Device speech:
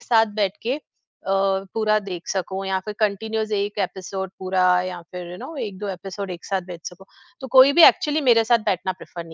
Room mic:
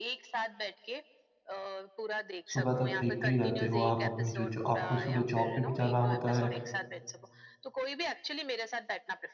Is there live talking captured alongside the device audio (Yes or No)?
Yes